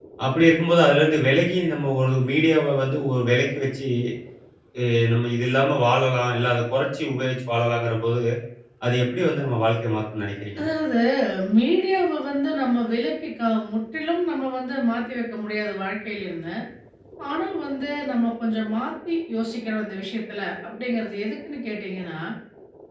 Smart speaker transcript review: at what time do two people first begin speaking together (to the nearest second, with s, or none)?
none